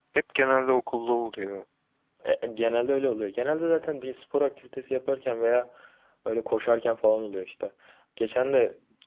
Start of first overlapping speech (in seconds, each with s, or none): none